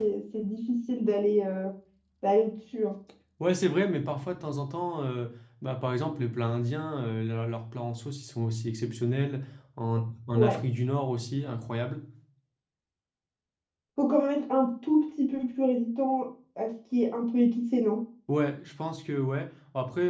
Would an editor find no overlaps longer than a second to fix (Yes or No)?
Yes